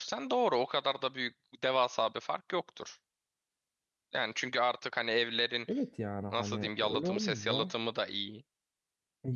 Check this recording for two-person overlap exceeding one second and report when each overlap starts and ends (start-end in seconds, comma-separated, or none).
6.3-7.7